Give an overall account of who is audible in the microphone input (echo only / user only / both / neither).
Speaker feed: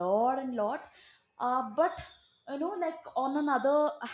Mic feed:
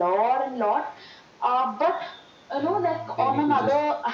both